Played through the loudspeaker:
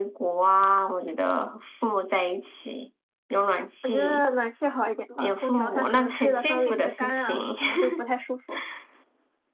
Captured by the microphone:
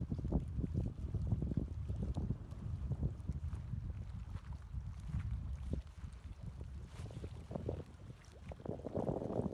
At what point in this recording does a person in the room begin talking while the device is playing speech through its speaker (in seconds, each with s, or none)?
none